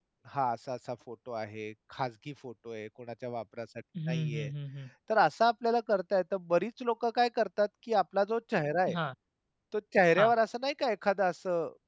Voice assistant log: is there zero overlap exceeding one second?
Yes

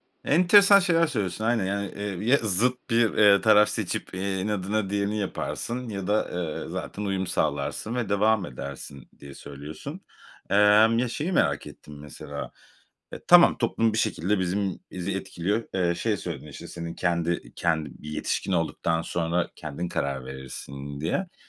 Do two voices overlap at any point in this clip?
No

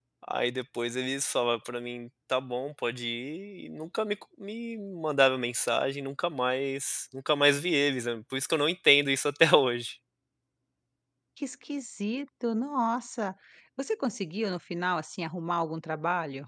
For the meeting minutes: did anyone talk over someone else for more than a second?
No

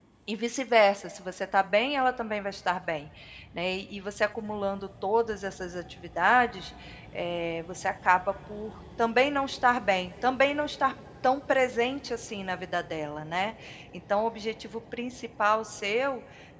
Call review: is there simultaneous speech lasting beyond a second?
No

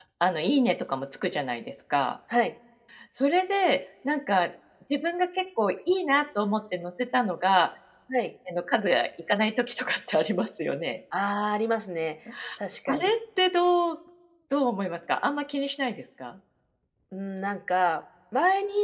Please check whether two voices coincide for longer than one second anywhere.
No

